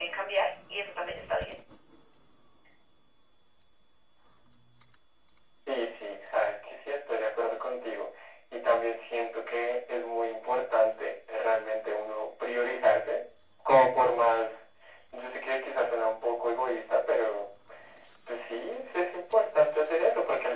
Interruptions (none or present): none